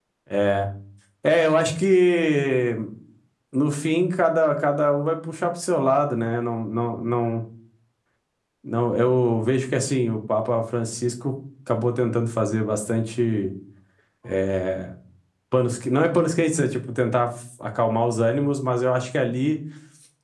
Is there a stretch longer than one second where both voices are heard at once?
No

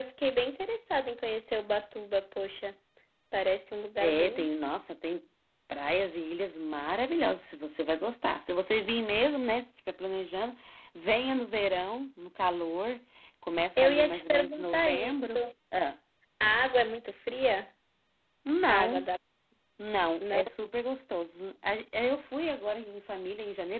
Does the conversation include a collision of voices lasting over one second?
Yes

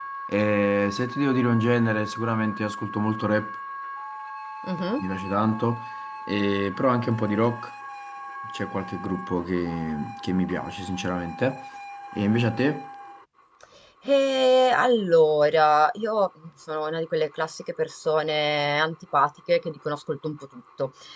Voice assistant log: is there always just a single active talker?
Yes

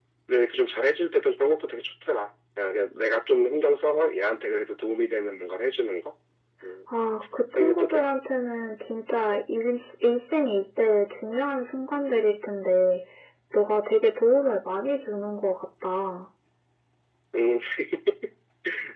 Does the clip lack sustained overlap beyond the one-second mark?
Yes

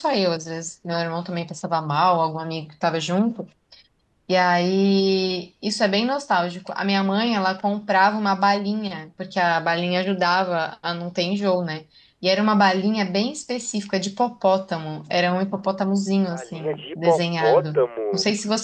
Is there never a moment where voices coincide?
No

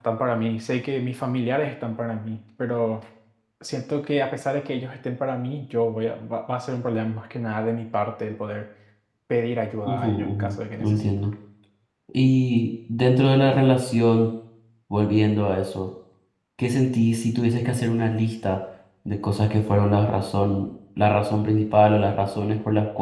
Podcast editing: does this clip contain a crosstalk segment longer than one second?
Yes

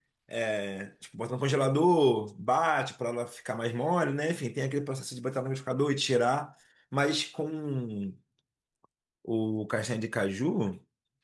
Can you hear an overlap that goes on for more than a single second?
No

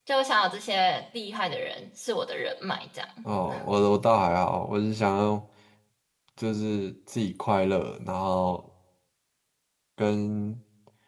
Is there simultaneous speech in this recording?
No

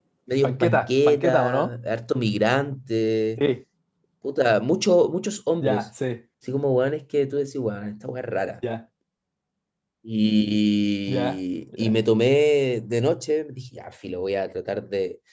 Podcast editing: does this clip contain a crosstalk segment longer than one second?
Yes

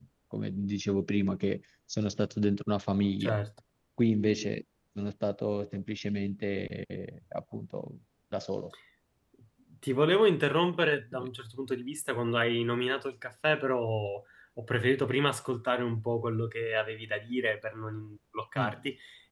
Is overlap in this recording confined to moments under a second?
Yes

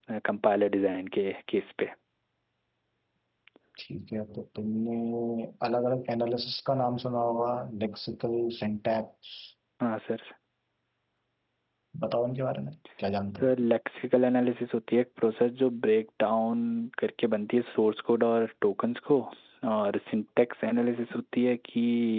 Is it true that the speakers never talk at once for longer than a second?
Yes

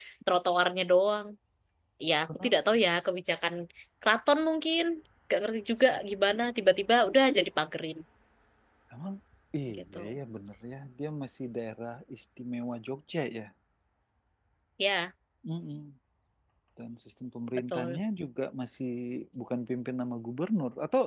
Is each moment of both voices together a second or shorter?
Yes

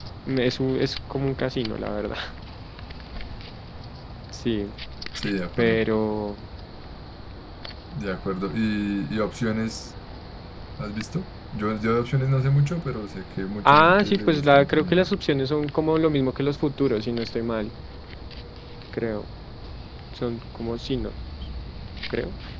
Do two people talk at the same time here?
Yes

